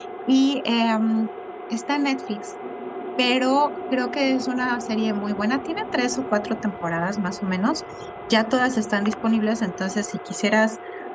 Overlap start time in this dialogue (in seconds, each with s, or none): none